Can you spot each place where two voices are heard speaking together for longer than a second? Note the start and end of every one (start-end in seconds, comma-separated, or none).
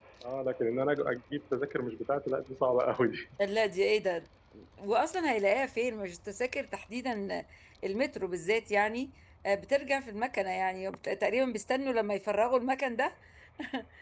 none